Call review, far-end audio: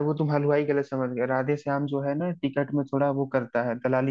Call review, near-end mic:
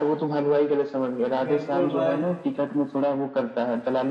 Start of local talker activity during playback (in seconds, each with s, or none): 1.5 s